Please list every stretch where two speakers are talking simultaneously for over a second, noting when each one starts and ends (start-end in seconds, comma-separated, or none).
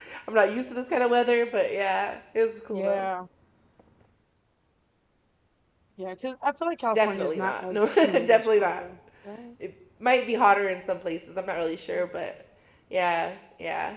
7.0-8.8